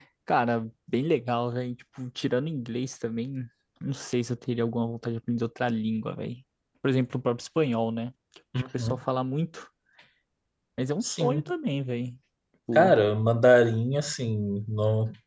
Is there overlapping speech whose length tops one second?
No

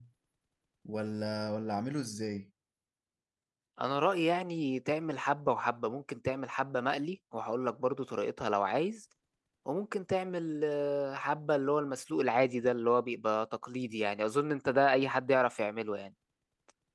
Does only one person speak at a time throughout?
Yes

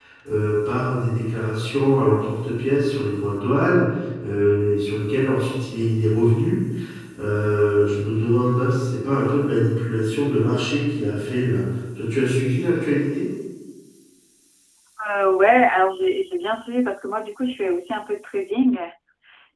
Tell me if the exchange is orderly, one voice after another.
Yes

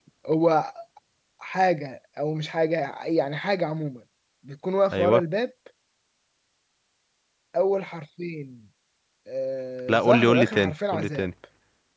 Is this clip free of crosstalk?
No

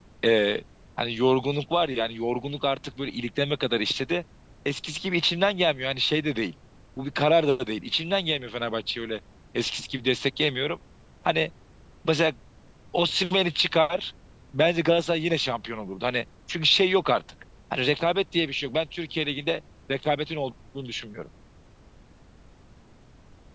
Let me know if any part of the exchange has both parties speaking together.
No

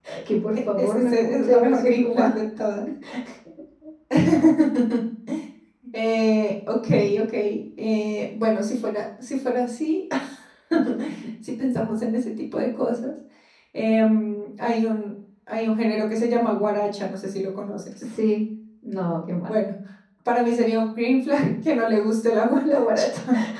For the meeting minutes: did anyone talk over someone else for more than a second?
Yes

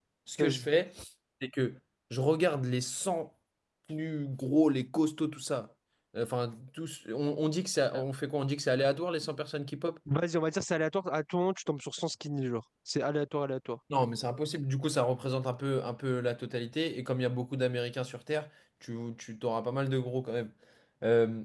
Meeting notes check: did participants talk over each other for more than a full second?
No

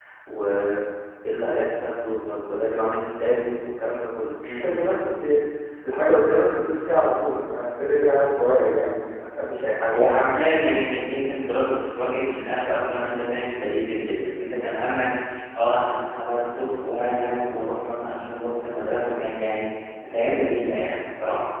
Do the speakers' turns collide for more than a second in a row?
No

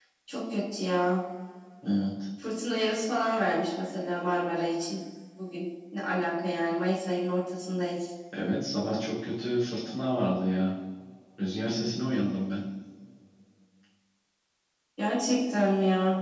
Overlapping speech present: No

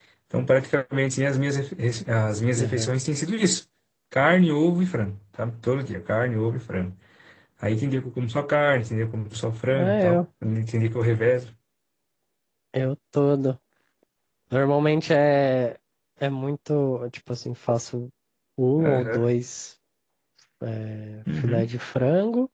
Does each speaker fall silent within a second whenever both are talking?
Yes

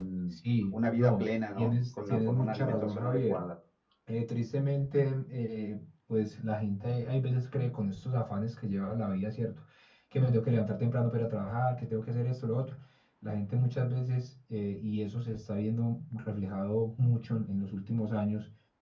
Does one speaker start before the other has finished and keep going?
Yes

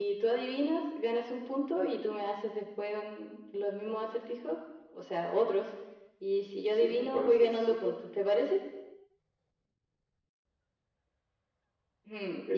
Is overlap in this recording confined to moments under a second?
No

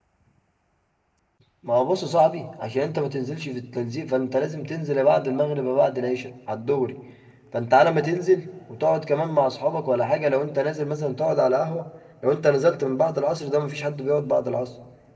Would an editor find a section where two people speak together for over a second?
No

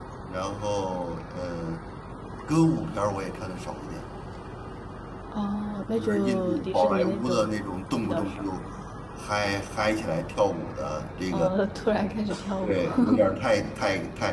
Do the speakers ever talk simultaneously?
Yes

